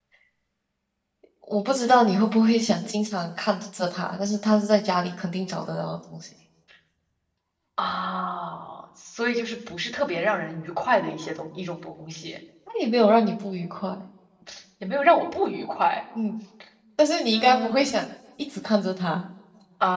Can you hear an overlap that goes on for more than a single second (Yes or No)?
No